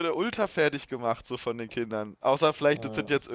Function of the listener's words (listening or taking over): listening